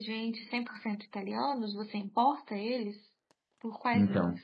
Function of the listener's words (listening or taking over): taking over